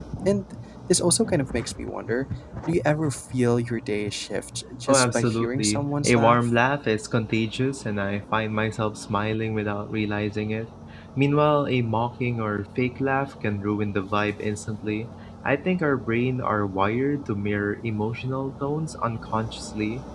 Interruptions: present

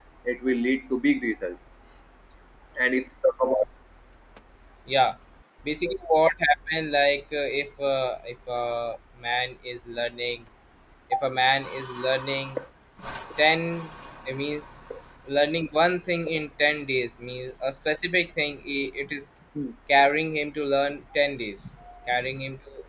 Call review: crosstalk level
none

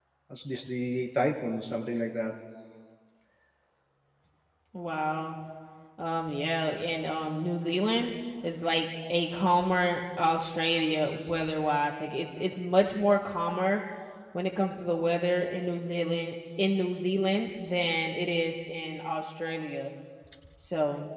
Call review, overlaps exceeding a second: none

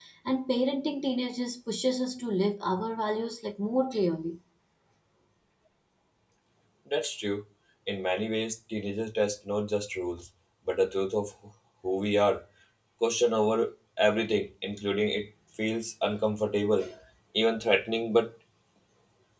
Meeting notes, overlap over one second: none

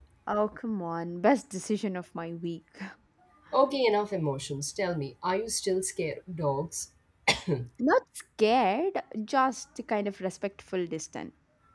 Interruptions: none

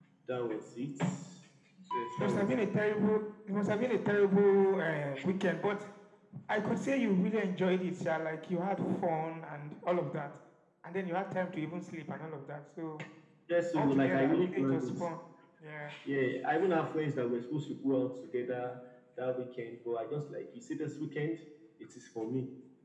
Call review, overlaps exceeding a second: present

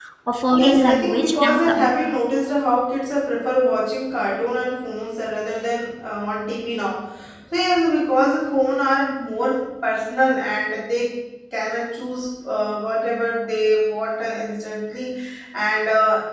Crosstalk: present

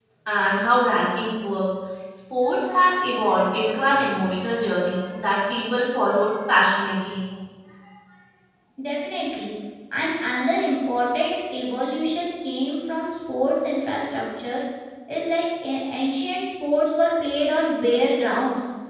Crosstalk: none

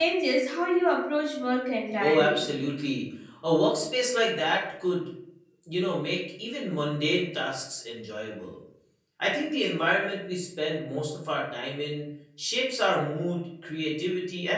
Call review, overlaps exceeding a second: none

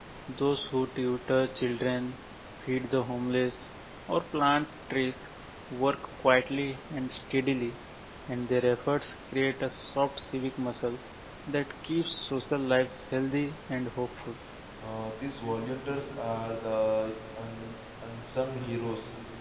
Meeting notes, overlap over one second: none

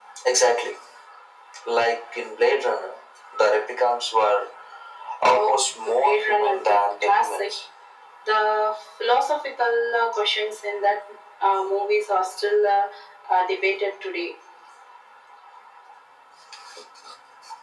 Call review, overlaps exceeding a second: present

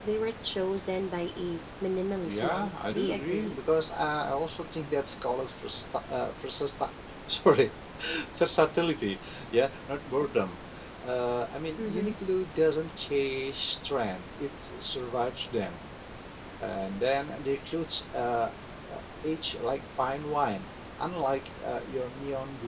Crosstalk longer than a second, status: present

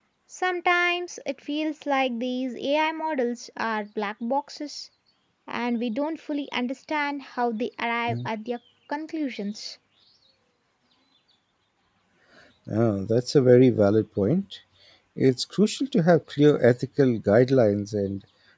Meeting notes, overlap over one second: none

